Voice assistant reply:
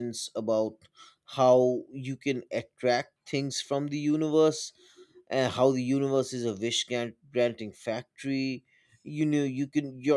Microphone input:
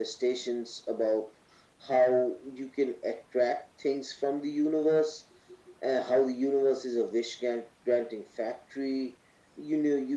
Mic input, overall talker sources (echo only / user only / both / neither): echo only